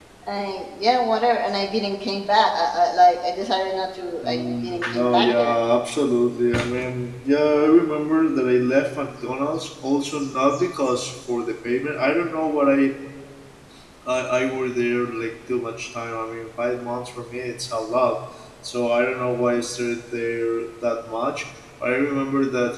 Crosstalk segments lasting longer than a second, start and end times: 4.2-5.6

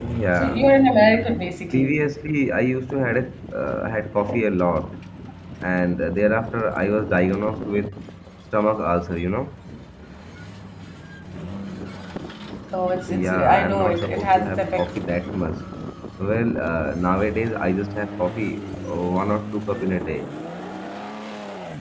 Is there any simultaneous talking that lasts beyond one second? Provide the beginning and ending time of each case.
13.1-14.9

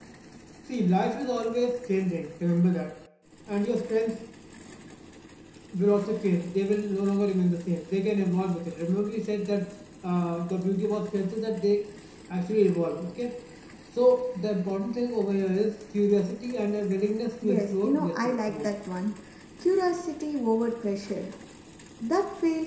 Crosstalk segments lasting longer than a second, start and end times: 17.4-18.7

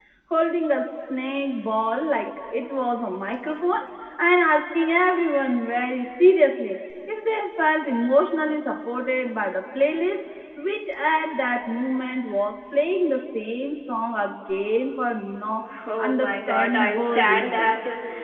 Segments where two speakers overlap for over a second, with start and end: 16.0-17.7

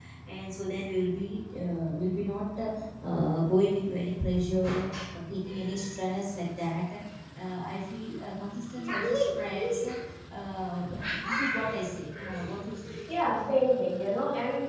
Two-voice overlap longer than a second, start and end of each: none

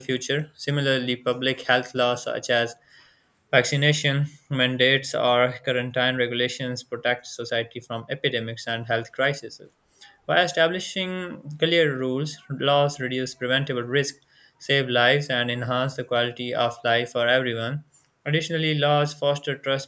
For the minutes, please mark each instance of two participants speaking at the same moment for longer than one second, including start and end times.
none

